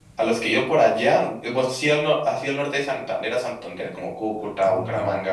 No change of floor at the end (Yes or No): No